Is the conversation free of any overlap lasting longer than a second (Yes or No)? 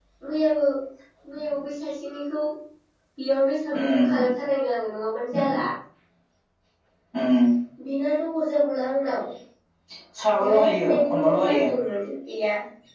No